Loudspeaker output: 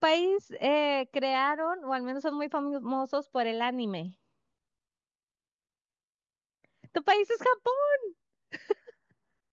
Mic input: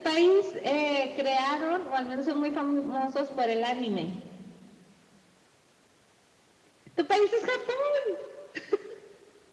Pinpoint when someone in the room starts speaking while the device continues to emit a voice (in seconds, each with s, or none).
none